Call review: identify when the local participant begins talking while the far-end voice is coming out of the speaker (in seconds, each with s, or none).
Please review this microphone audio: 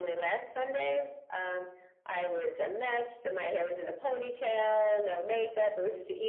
none